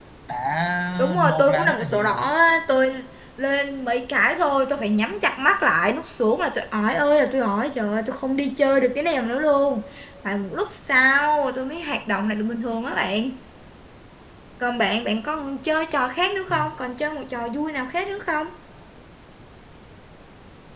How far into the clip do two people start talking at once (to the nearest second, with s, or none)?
1 s